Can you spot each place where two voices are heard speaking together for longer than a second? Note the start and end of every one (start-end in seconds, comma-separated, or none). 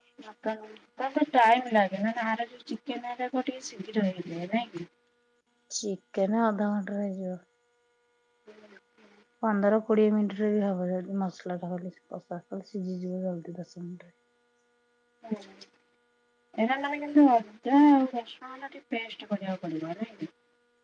none